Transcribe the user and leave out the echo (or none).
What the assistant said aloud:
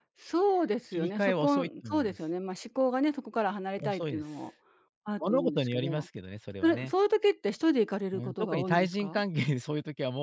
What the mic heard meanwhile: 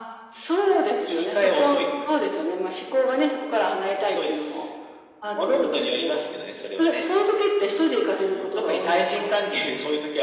none